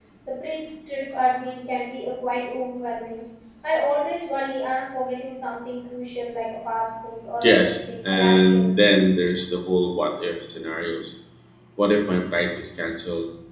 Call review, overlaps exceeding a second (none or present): present